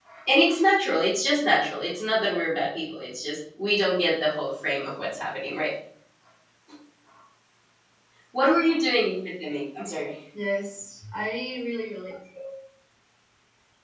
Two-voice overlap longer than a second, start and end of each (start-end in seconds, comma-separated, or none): none